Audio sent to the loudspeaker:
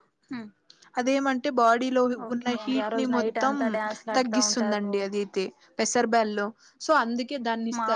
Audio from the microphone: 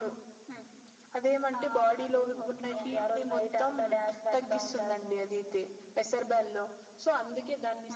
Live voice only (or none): ఆ అవునండి